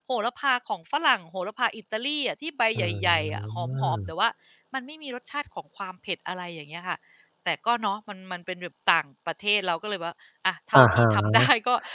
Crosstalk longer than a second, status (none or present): present